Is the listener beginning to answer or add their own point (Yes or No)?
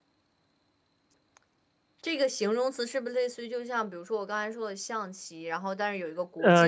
Yes